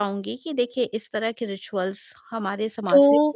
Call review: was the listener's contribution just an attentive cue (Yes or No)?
No